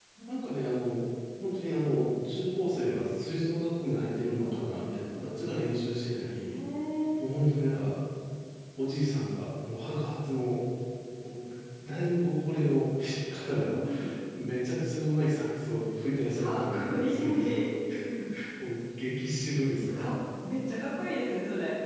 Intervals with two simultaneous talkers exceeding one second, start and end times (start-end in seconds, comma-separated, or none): 16.4-17.6